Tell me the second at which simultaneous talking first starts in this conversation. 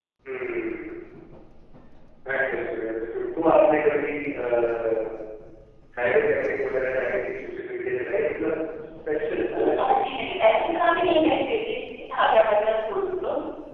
10 s

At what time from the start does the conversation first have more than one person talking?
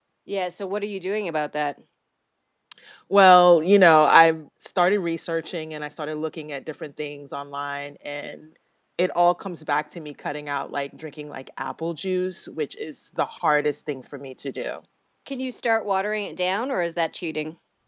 none

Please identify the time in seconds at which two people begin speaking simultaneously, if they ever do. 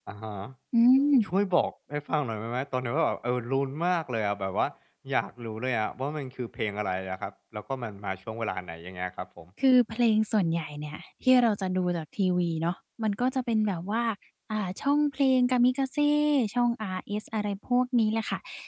none

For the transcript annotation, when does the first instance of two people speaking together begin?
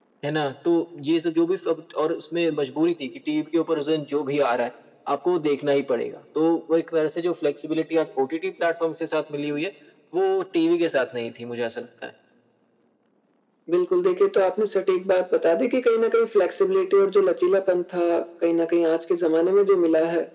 none

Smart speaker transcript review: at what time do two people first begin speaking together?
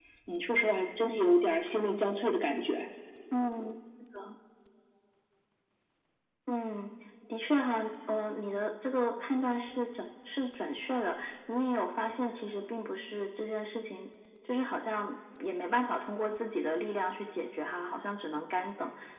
none

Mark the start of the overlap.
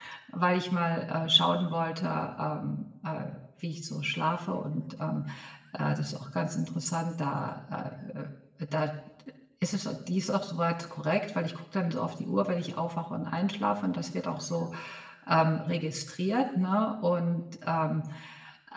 none

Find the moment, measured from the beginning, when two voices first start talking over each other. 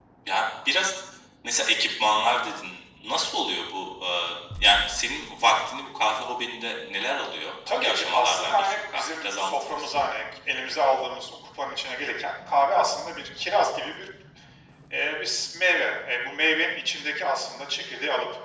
8 s

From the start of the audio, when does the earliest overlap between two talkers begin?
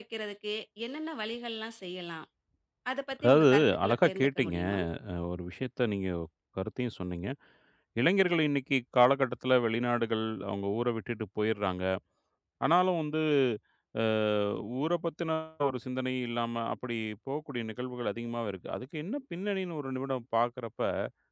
3 s

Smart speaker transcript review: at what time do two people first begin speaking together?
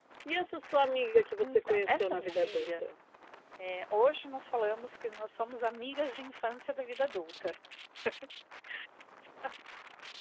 1 s

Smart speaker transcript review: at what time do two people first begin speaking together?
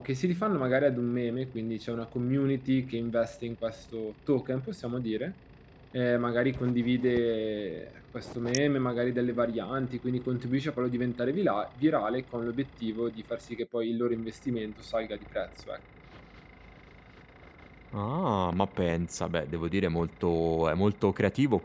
none

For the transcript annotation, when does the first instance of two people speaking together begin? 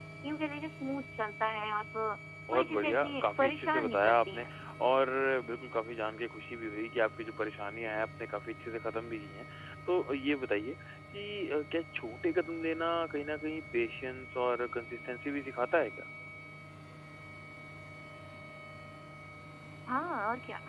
3 s

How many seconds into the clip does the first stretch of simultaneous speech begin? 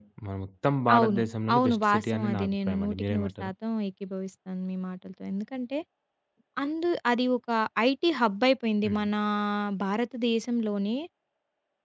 1 s

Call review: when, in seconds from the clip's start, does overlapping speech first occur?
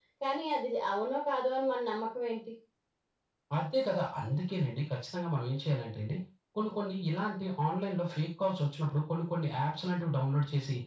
none

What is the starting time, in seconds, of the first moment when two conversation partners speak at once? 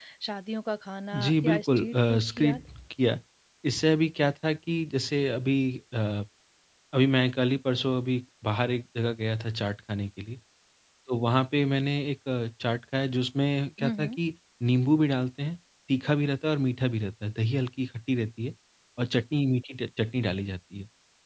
1 s

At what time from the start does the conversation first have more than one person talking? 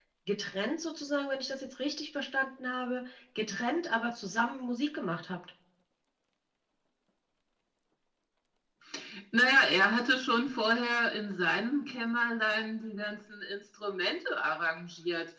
none

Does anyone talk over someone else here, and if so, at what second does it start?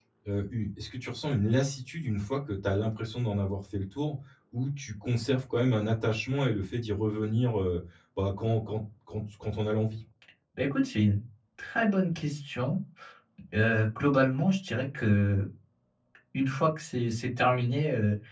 none

